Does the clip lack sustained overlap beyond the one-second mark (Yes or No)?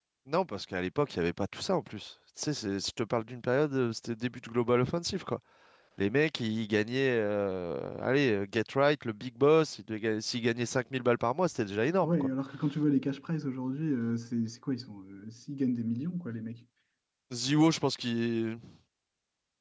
Yes